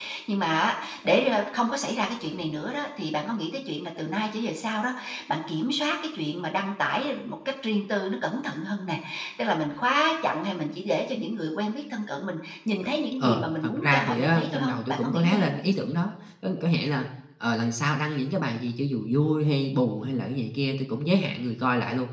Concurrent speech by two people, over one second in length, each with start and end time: 13.2-15.5

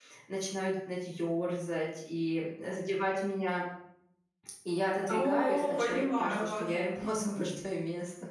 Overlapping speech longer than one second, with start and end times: 5.1-6.6

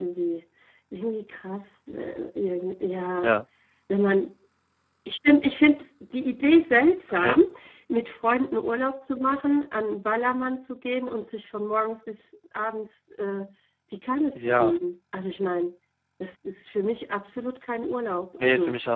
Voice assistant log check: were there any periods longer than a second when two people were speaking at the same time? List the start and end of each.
none

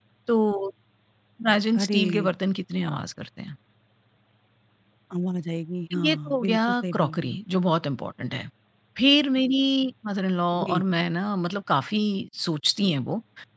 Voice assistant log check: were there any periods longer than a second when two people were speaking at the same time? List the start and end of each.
6.0-7.3

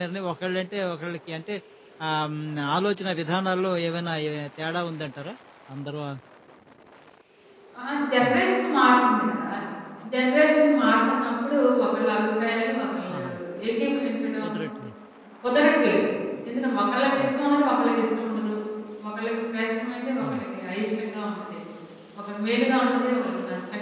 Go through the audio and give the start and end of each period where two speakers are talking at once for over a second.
none

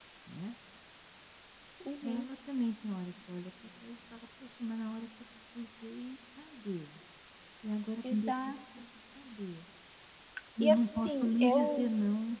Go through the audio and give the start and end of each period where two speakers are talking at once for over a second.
10.6-11.8

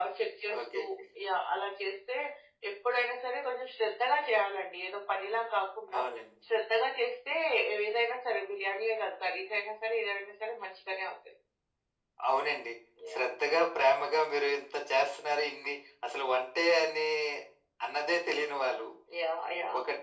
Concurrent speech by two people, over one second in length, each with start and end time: none

